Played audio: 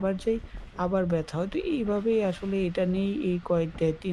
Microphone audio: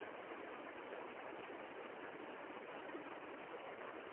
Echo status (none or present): none